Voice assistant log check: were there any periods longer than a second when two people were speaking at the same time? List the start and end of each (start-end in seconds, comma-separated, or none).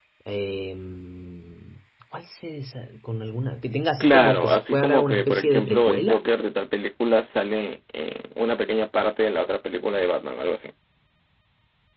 4.0-6.2